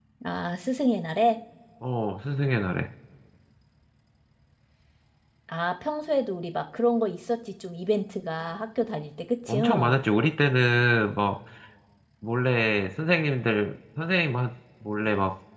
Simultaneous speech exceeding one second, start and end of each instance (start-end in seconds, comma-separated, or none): none